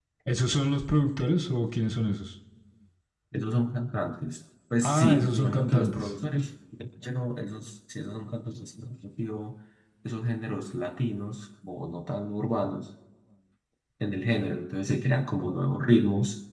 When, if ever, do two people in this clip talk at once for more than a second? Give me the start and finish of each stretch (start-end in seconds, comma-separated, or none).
4.8-6.1